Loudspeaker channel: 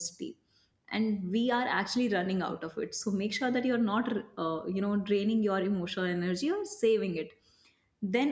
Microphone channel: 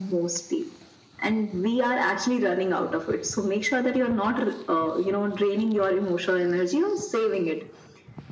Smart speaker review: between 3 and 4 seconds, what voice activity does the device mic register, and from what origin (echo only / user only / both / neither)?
echo only